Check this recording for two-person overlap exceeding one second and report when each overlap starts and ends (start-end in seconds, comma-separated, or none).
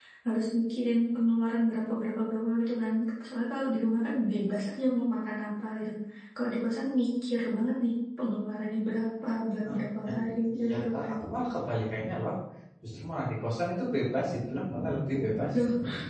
9.7-11.1